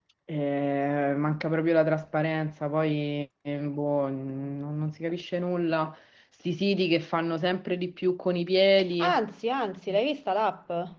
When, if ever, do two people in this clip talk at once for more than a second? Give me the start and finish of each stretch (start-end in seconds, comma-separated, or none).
none